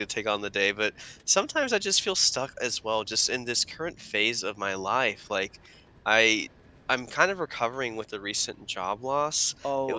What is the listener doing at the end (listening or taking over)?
listening